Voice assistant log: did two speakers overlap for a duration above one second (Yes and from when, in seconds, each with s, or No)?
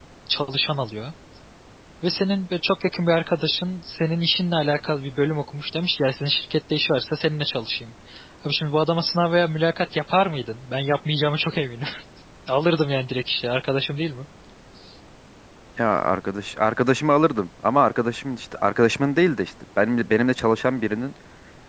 No